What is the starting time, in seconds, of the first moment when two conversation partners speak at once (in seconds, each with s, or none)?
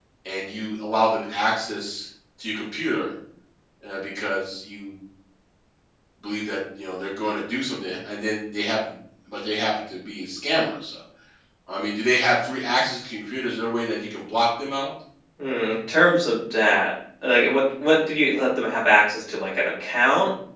none